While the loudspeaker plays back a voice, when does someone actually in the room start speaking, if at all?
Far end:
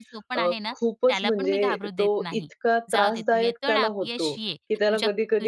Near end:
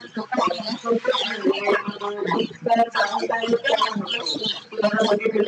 none

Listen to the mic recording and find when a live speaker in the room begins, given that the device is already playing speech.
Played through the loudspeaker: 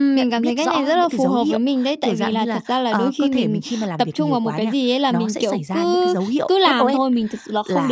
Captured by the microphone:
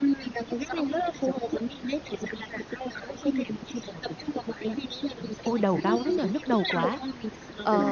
5 s

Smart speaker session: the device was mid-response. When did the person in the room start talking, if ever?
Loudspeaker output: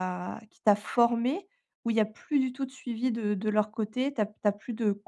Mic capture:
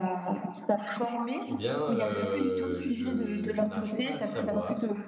1 s

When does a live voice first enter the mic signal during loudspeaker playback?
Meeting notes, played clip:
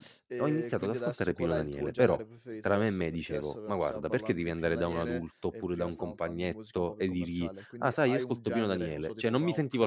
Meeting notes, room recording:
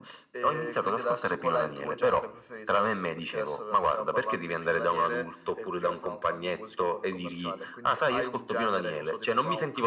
none

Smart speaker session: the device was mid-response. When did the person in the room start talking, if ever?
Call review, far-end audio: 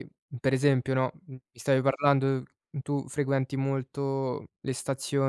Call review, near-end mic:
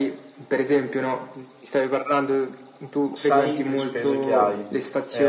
3 s

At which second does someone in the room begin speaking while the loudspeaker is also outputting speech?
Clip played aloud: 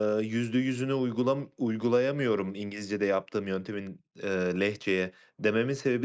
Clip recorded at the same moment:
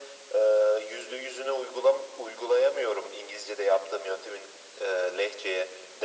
none

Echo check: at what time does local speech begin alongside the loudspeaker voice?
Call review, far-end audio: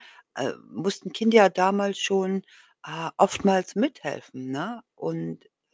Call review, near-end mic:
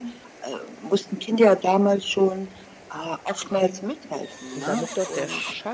5 s

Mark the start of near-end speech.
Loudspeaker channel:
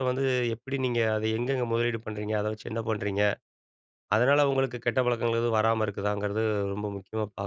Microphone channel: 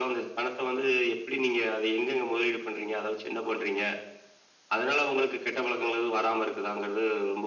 none

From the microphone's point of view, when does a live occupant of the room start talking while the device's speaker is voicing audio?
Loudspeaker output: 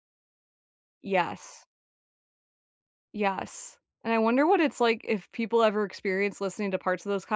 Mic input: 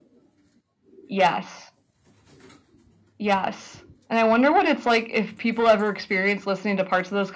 none

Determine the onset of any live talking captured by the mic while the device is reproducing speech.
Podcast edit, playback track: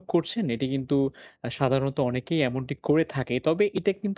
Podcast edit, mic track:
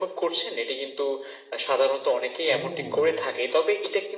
2 s

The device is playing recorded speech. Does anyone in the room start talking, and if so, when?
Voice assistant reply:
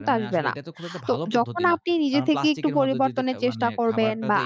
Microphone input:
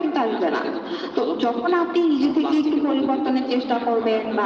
none

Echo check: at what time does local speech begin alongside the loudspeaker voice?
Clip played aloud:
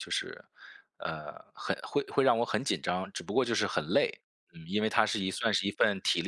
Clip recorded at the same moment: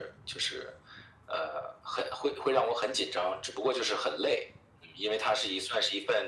none

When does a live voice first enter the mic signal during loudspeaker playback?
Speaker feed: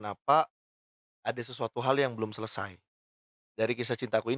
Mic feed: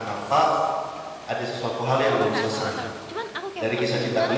2 s

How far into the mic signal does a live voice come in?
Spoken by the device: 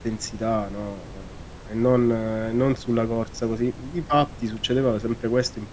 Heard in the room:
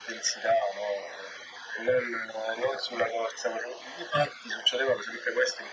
none

